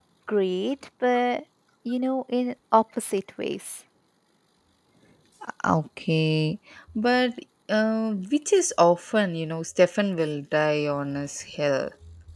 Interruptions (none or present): none